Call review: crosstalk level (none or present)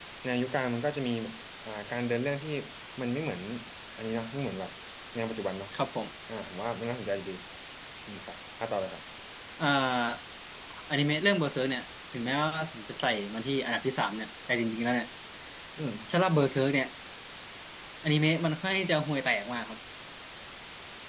none